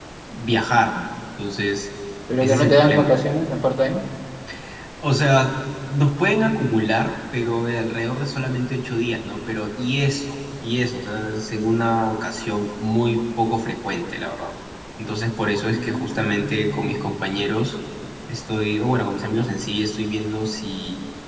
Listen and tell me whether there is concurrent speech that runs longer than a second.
Yes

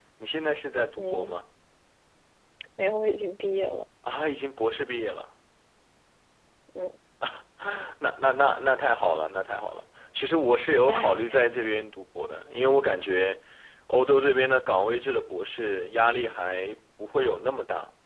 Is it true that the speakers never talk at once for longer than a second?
Yes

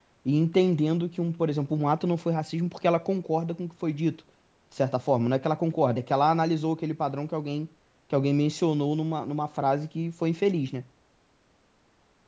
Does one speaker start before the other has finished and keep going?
No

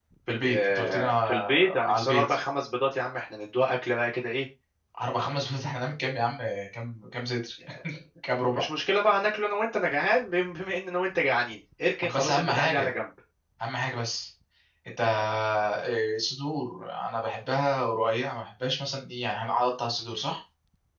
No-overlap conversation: No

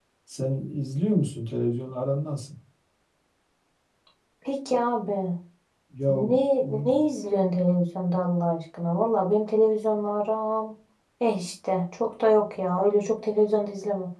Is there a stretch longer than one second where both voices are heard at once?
No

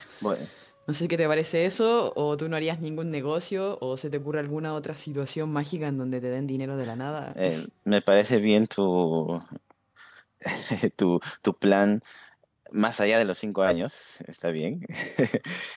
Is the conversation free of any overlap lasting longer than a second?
Yes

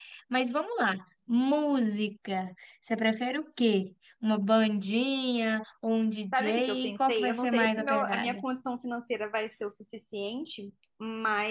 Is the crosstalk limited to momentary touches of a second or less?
No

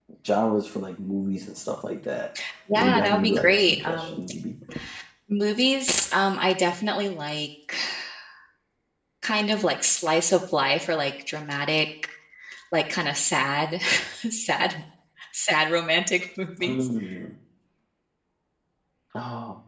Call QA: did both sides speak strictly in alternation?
No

